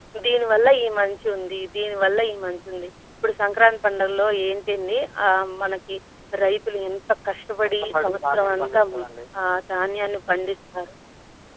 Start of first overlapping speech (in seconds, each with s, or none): 7.8 s